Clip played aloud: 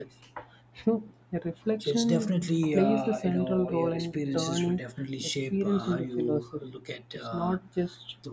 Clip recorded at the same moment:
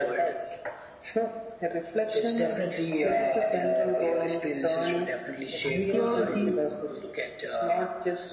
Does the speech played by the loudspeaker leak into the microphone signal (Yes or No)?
Yes